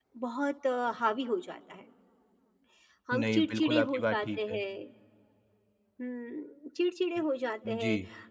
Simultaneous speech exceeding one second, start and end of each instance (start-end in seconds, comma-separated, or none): 3.1-4.6